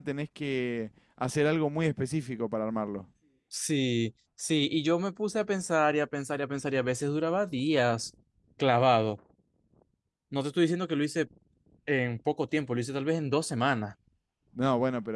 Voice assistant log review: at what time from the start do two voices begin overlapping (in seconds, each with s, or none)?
none